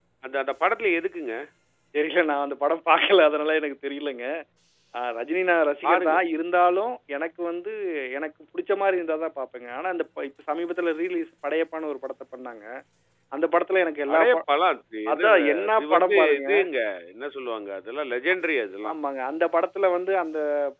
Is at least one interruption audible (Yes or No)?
Yes